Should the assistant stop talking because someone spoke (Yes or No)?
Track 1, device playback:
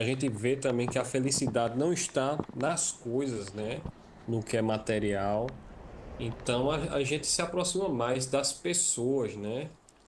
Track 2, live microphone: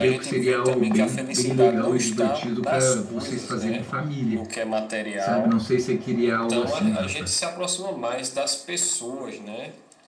Yes